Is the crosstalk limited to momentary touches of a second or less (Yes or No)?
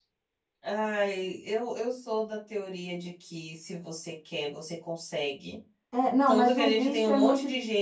No